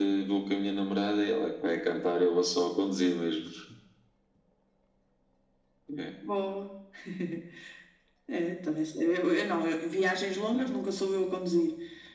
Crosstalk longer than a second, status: none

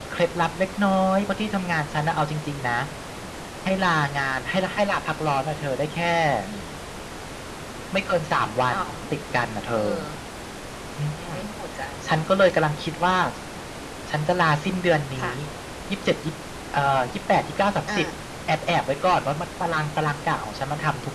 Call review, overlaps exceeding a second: none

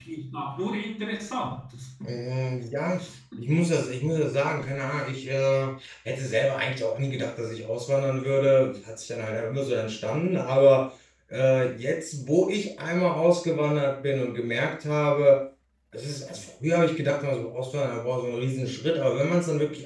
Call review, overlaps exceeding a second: none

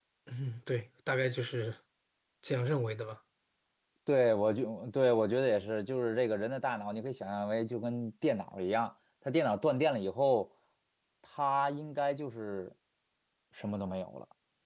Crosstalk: none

